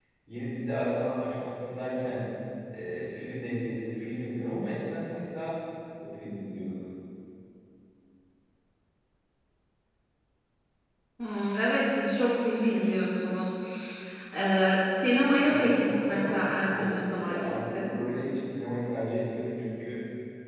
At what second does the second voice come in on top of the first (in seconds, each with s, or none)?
15.4 s